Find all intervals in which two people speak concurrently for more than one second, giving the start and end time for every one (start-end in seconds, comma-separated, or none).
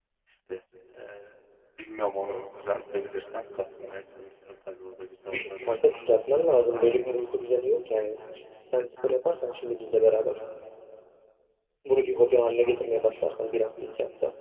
none